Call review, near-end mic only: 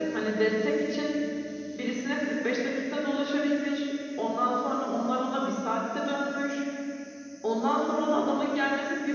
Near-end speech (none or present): none